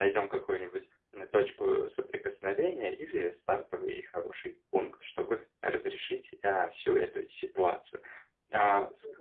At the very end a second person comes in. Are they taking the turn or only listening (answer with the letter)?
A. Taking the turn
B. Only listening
B